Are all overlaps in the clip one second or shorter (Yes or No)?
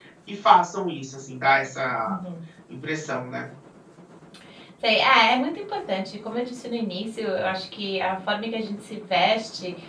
Yes